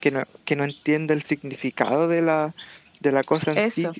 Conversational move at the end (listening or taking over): listening